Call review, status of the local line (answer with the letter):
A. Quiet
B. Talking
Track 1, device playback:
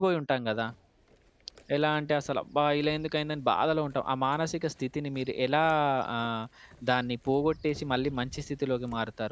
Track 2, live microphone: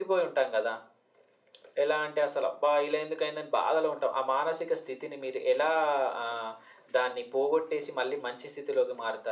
A